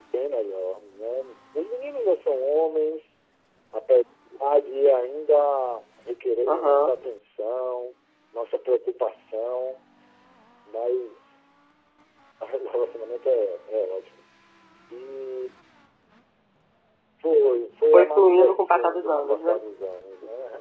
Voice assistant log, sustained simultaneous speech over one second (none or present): present